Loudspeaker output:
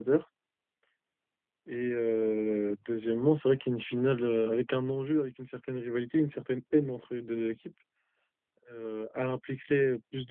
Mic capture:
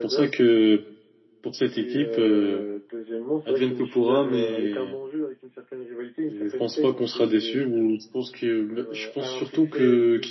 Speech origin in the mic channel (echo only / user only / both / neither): both